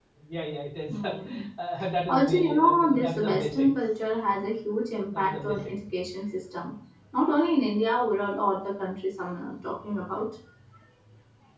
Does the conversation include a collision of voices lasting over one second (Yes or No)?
Yes